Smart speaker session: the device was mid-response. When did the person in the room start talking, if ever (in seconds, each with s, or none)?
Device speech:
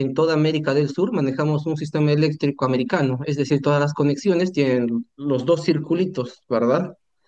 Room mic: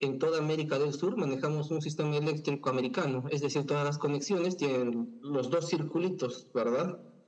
none